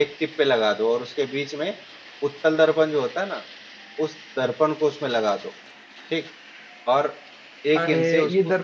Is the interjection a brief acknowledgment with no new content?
No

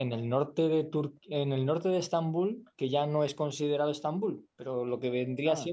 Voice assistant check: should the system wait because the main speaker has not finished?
Yes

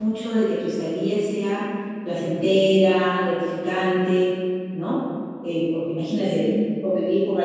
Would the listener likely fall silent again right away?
Yes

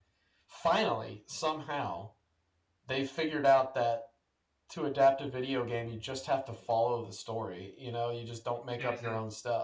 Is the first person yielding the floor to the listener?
No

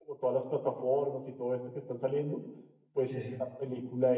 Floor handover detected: No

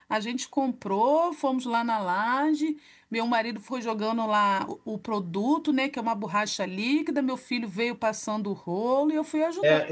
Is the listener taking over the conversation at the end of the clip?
Yes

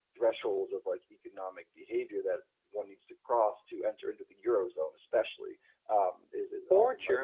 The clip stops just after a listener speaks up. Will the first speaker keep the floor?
No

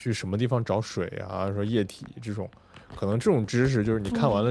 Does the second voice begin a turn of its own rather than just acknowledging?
No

